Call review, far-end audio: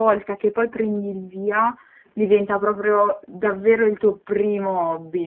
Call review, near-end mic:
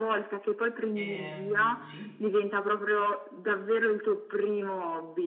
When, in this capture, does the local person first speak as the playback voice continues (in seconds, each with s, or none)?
1.0 s